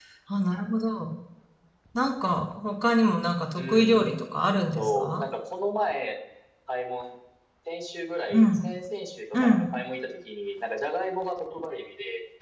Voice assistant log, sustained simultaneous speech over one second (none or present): present